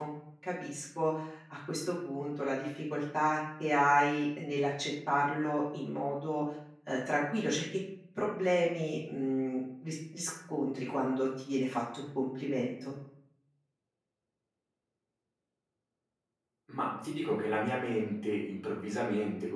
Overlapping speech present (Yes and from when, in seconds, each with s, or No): No